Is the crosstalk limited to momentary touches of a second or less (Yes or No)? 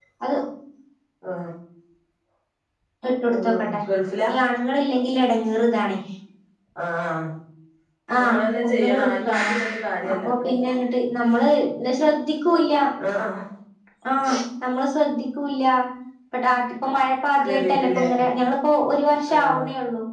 No